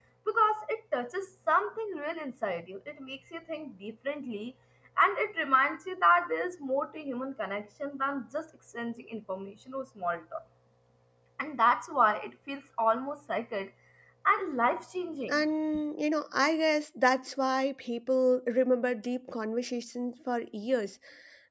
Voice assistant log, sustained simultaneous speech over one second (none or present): none